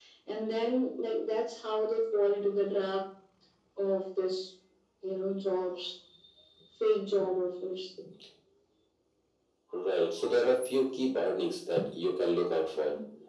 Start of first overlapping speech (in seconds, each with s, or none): none